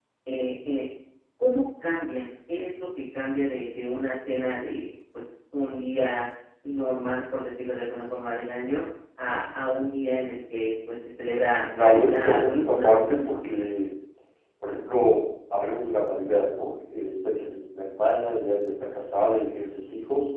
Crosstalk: present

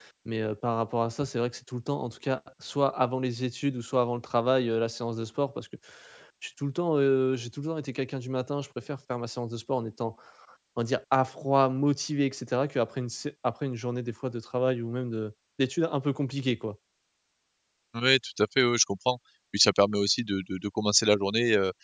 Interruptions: none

